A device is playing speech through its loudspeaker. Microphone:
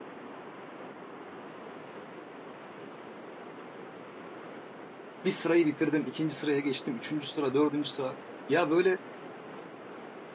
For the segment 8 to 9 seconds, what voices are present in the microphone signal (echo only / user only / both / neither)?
user only